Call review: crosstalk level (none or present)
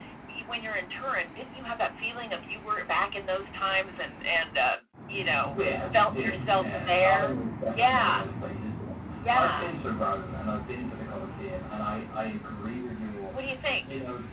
present